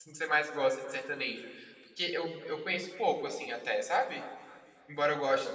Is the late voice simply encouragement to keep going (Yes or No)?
No